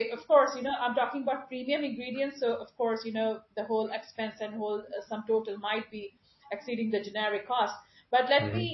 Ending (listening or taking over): listening